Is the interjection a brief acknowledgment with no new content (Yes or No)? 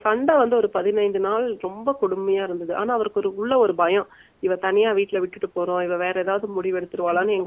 Yes